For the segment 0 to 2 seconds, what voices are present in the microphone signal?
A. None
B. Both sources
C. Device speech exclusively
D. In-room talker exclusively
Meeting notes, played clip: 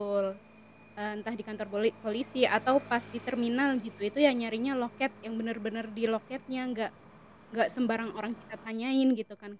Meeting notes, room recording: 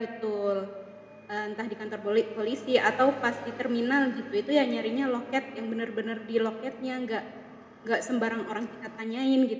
C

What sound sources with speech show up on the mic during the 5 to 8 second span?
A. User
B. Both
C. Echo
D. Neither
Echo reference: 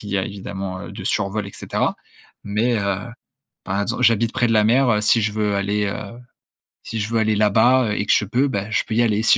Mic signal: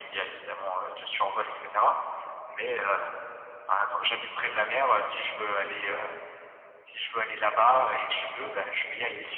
C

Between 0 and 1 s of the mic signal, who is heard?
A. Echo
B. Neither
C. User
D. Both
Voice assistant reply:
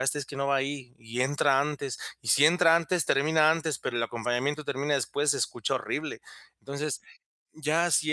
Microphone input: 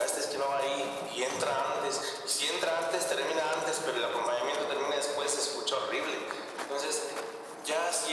A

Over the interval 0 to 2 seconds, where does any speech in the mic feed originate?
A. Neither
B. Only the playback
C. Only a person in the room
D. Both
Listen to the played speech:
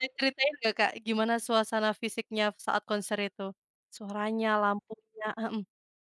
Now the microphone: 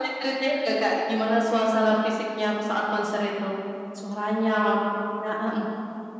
D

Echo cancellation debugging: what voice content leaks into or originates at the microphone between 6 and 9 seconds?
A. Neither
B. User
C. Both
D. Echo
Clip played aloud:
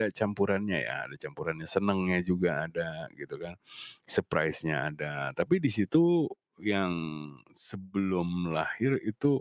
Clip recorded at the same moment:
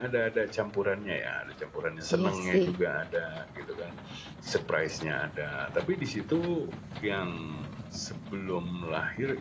D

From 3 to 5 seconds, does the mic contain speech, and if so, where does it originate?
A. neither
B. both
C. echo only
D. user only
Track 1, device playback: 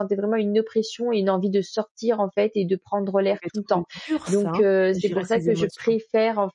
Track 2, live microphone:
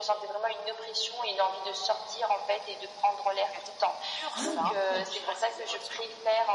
B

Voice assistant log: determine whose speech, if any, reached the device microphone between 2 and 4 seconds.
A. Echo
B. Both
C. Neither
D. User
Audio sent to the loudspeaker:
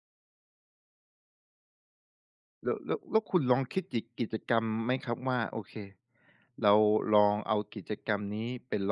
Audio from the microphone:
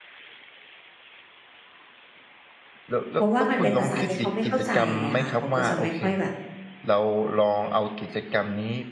B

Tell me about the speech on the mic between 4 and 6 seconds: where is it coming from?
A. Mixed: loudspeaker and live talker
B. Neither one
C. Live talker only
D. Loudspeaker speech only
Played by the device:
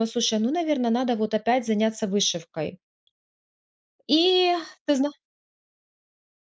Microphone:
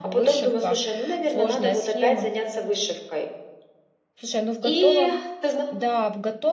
A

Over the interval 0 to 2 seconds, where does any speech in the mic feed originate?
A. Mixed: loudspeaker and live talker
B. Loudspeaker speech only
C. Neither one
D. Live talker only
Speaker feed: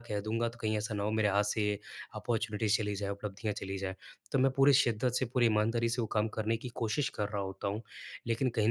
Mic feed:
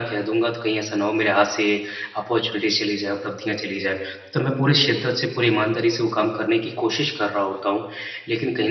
B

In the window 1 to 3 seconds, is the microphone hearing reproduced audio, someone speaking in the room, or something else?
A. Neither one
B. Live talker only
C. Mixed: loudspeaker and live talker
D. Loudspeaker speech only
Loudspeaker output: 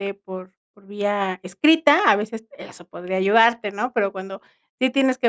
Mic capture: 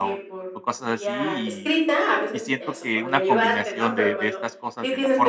C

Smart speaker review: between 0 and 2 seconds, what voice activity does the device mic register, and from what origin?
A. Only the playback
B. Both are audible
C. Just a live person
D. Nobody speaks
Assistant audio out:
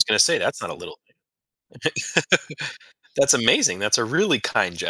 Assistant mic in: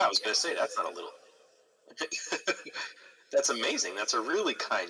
A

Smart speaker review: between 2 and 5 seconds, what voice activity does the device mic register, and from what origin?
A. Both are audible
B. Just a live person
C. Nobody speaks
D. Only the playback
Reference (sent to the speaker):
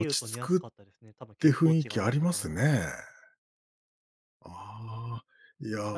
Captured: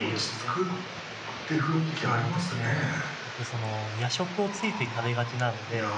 A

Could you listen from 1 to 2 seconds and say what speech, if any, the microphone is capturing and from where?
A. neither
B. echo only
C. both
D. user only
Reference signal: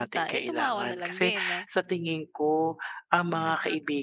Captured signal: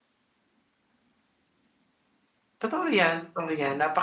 A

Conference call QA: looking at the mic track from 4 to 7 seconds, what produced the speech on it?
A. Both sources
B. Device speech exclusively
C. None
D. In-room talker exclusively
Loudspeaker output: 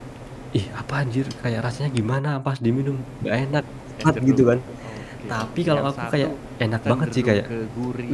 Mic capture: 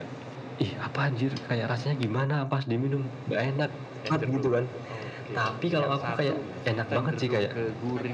A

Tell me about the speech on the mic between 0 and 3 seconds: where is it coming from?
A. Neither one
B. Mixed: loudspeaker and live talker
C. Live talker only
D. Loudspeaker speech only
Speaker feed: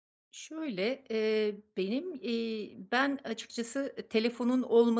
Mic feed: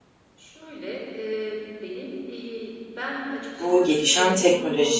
D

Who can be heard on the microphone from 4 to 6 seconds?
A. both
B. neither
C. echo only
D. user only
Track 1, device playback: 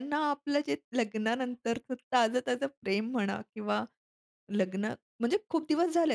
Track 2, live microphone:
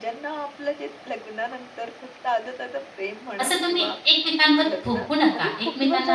A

